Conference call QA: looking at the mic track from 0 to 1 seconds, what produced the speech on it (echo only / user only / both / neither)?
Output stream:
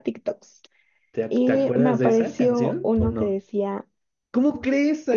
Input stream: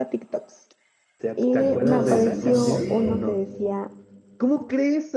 echo only